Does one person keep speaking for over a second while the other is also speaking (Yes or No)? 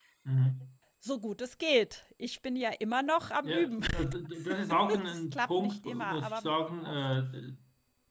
Yes